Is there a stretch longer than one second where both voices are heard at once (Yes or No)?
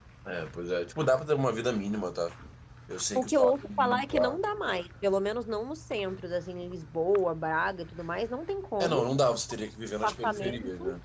Yes